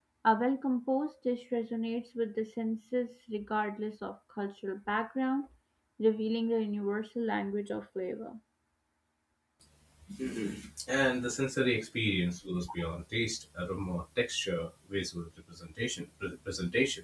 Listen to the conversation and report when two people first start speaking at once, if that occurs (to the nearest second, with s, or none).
none